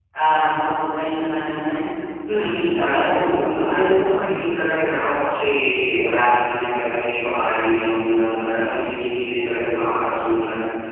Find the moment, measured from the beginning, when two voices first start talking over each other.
2.3 s

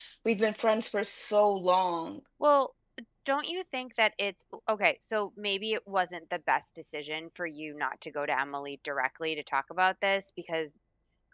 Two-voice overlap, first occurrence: none

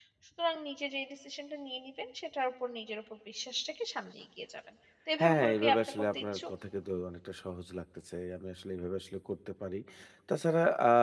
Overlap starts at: 5.2 s

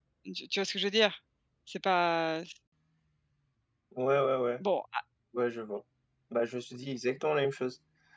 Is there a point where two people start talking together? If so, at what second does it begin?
none

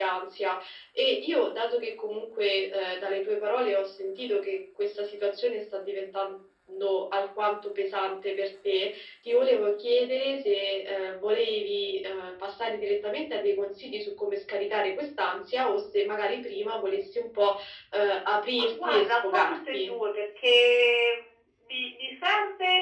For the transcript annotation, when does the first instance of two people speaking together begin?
18.6 s

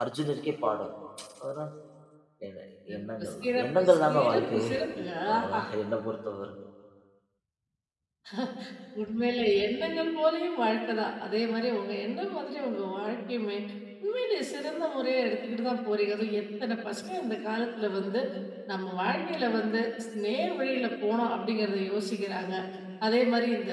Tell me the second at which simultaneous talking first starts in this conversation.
3.0 s

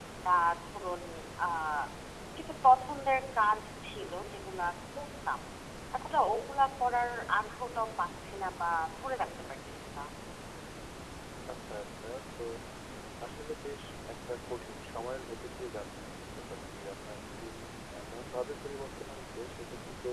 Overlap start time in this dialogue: none

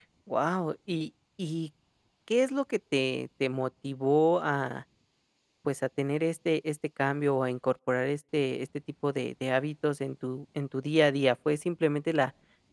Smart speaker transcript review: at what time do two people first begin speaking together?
none

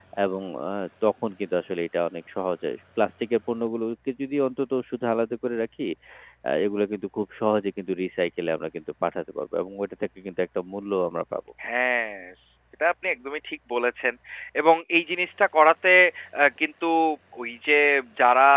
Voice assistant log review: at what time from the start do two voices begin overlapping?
none

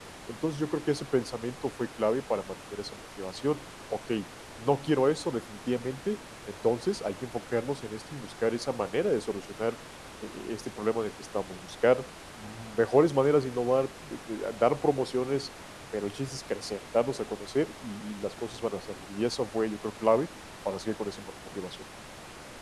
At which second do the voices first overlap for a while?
none

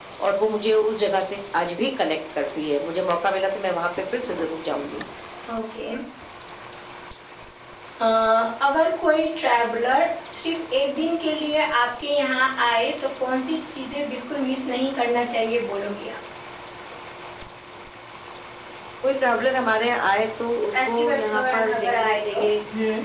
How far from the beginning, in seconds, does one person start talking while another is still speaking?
20.7 s

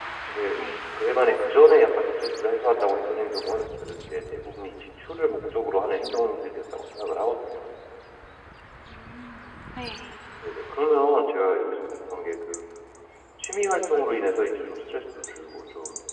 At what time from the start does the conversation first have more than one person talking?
none

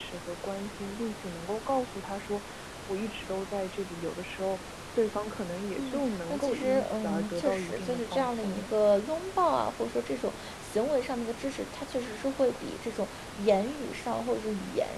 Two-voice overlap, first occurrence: 5.8 s

